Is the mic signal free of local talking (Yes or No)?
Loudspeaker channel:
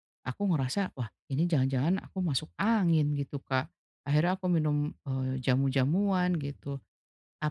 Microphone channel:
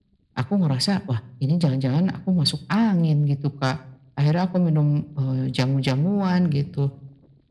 Yes